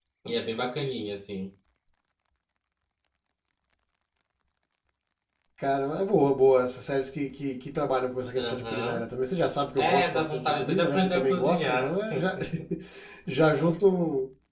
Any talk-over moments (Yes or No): Yes